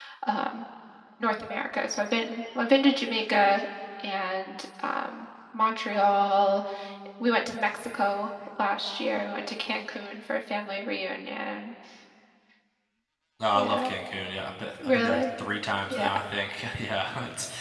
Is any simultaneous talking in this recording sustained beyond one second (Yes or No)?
No